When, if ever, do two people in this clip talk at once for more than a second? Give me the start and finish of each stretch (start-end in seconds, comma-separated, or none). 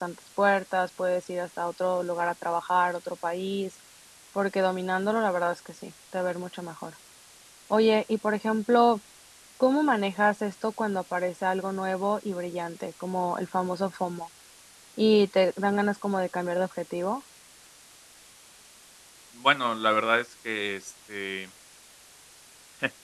none